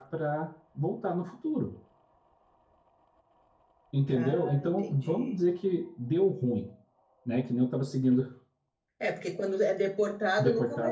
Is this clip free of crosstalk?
No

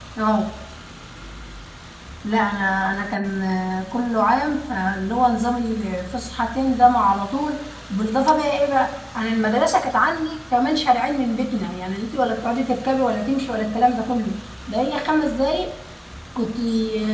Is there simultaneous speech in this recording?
No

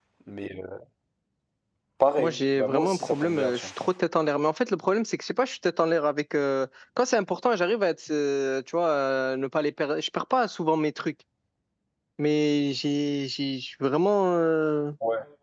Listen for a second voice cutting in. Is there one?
Yes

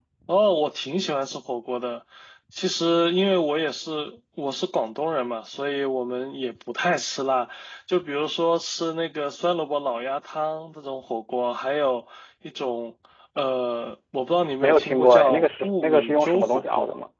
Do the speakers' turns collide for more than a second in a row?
Yes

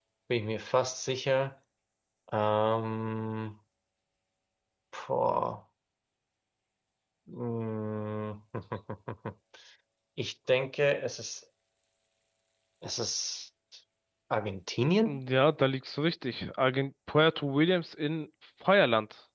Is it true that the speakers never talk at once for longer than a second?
Yes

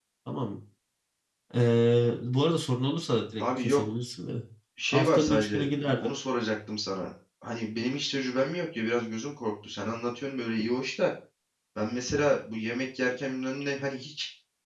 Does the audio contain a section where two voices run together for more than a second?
Yes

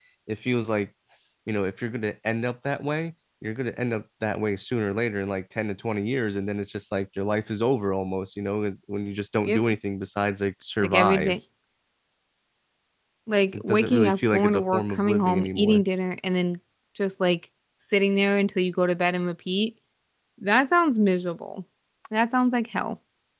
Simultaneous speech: Yes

